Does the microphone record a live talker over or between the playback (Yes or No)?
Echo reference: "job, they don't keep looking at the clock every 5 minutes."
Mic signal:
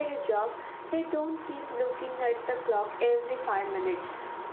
No